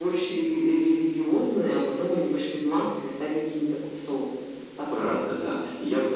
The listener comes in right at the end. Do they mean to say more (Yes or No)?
Yes